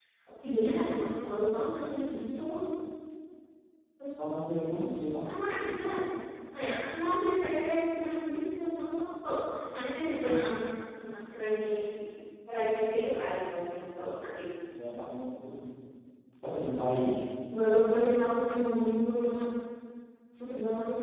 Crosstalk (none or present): none